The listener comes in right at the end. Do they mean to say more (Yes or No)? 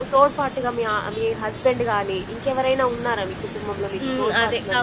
Yes